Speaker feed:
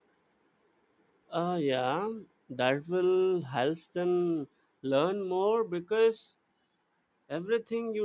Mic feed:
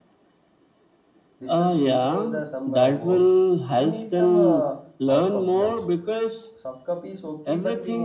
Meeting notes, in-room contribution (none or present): present